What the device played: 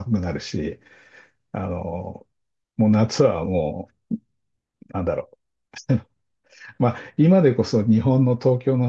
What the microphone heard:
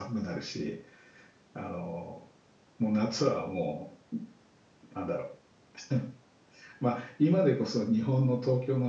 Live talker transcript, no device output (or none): none